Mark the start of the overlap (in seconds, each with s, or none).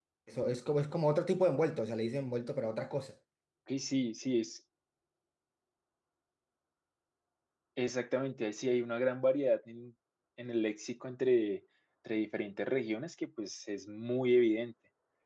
none